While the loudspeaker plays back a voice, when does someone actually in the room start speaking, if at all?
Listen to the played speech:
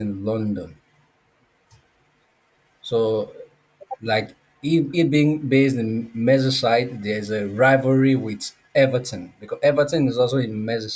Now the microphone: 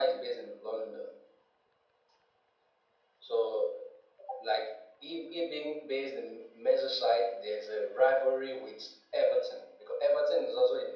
none

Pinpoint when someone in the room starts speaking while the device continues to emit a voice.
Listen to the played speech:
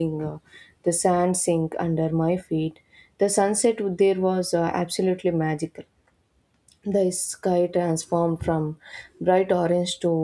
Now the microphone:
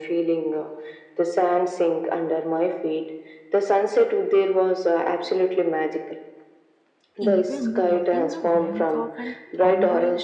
7.2 s

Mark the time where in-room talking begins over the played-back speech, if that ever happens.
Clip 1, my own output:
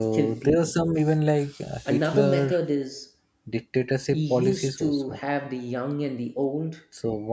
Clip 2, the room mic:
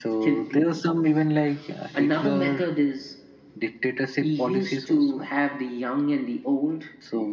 none

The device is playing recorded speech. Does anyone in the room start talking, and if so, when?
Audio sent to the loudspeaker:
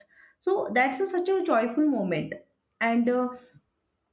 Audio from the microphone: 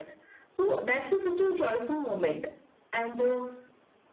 none

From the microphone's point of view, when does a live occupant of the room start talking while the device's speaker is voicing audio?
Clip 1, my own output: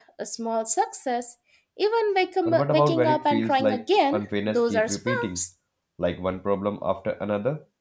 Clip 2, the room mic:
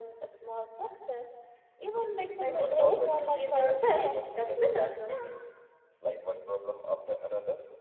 2.4 s

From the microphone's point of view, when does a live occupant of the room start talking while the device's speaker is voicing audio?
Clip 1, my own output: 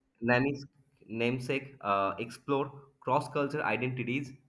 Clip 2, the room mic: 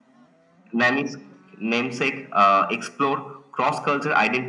none

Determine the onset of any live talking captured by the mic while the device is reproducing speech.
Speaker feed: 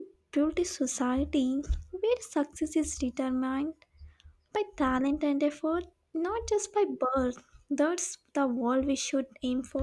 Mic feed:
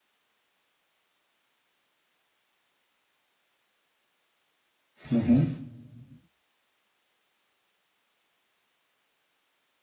5.1 s

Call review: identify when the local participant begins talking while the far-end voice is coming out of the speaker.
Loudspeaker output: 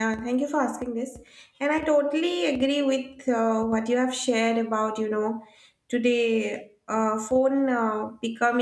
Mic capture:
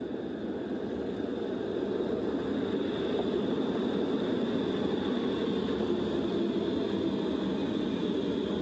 none

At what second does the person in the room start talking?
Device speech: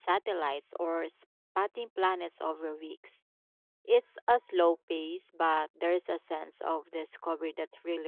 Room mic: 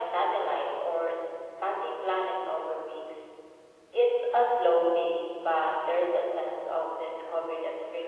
none

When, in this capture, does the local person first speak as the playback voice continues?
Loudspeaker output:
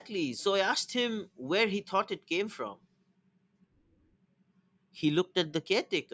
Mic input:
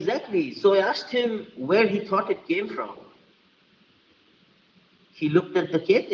none

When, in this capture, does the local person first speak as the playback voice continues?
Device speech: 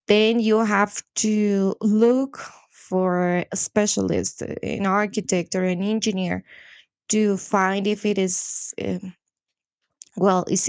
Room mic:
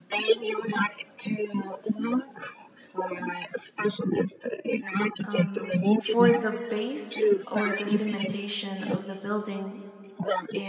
5.2 s

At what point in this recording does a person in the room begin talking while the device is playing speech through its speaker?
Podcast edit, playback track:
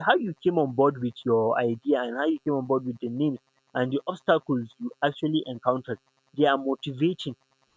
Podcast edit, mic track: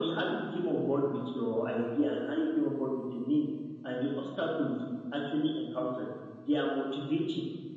none

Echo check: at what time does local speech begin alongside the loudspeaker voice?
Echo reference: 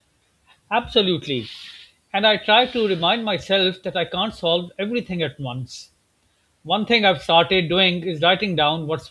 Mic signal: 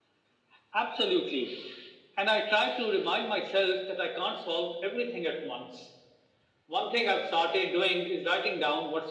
none

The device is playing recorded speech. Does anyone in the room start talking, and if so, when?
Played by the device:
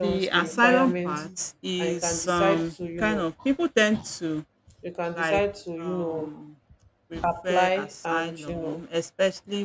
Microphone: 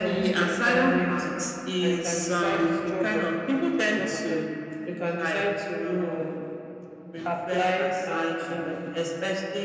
2.8 s

